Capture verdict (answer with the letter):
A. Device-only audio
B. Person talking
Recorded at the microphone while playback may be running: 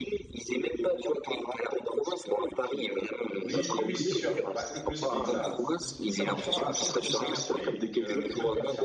B